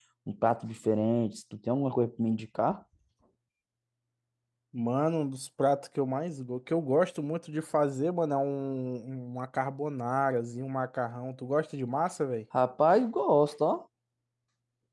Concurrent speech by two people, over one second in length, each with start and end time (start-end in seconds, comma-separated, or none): none